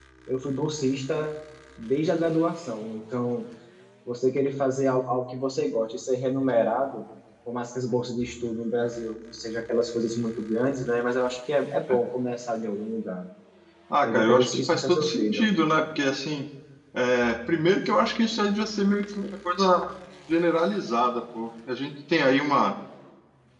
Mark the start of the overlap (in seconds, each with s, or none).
14.0 s